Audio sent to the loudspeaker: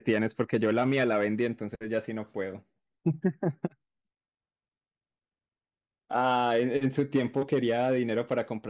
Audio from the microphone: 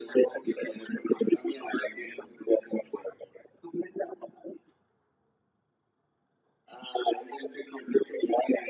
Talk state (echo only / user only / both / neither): echo only